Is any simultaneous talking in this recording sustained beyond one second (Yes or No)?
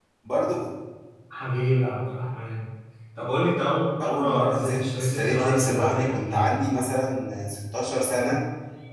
Yes